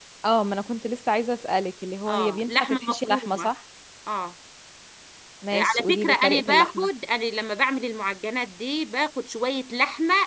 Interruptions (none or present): present